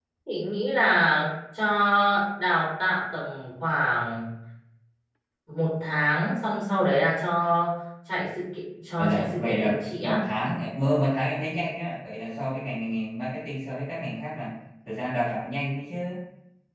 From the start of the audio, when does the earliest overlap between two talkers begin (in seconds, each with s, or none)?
8.9 s